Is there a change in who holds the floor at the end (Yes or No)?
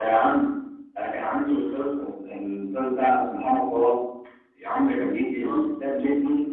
No